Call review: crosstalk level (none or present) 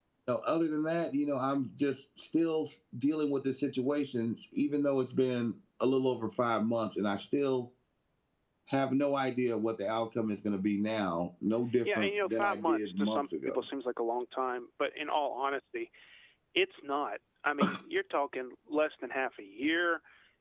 present